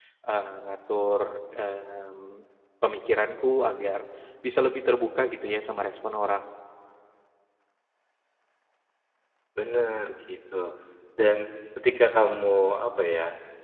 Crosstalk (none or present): none